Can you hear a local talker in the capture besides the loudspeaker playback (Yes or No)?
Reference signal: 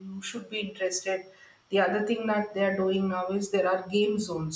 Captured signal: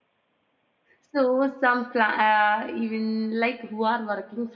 Yes